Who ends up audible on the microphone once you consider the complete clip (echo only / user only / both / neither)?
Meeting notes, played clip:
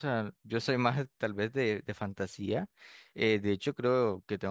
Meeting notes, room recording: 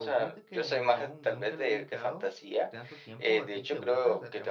both